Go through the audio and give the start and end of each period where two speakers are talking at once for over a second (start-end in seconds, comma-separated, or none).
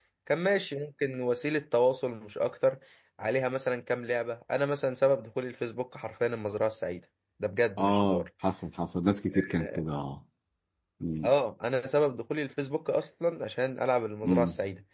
none